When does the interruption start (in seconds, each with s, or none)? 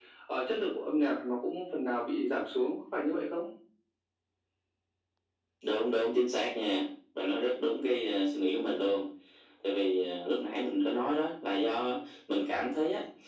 none